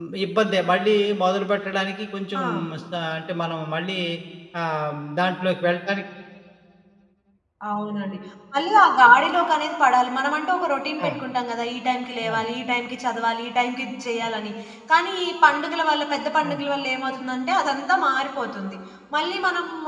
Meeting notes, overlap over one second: none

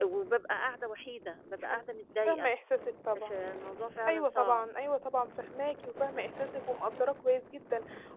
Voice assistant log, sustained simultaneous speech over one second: none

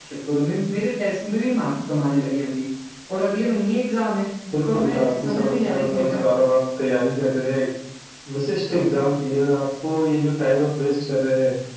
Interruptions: present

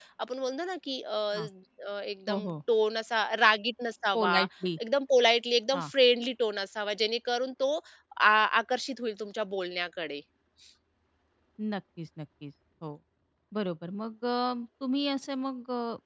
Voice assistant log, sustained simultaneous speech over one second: none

